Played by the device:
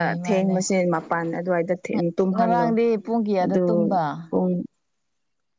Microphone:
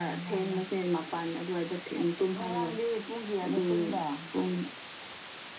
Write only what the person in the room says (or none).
none